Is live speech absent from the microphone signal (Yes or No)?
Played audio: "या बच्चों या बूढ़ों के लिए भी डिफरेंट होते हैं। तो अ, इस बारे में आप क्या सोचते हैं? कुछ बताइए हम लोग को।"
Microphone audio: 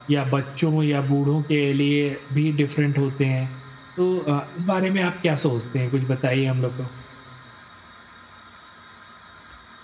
Yes